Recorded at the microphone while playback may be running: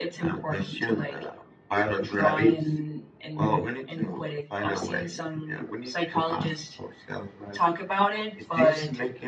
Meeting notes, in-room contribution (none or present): none